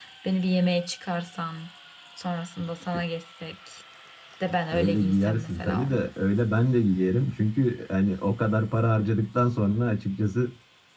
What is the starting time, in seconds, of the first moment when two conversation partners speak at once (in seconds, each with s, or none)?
4.7 s